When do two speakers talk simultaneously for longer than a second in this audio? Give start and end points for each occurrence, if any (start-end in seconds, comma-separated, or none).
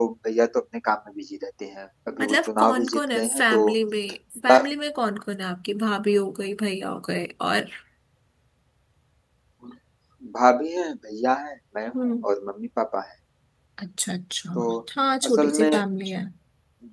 2.2-3.6